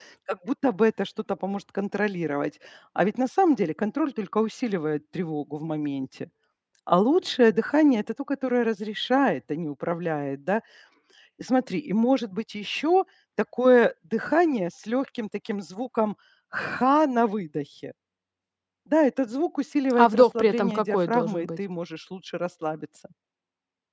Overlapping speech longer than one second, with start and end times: 19.9-21.5

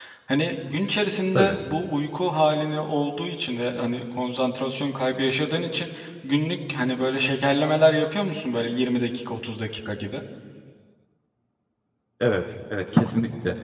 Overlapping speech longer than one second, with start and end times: none

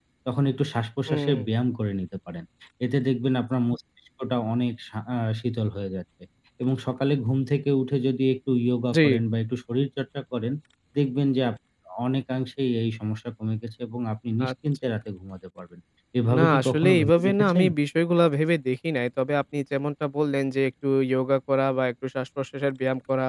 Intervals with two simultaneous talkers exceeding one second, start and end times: 16.4-17.6

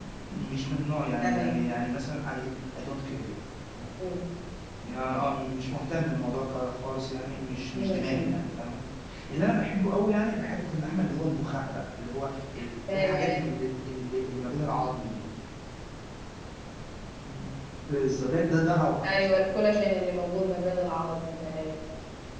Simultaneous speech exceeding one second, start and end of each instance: none

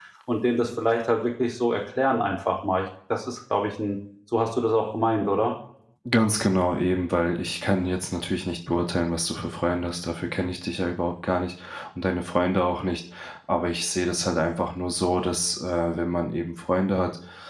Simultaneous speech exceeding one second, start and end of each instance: none

